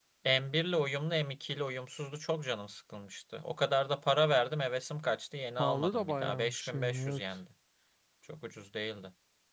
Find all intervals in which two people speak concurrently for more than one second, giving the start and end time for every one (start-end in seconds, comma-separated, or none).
5.6-7.4